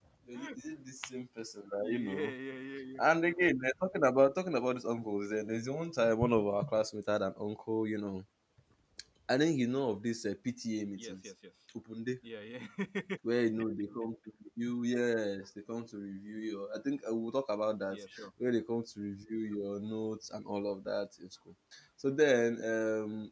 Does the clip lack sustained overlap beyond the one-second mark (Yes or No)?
Yes